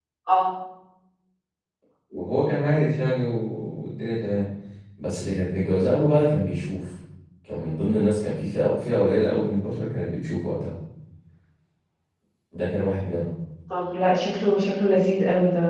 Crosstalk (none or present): none